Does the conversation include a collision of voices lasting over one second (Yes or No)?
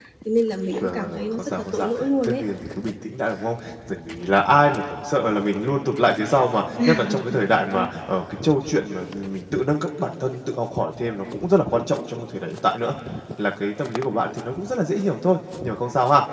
Yes